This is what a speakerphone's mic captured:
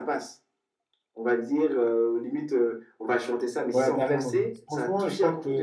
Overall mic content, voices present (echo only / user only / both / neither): both